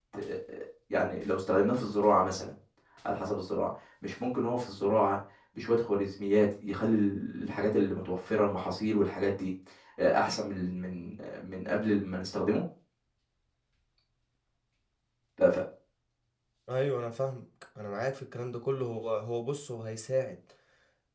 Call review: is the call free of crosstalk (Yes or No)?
Yes